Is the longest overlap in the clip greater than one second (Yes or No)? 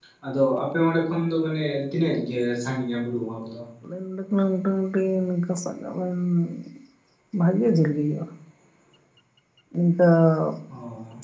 No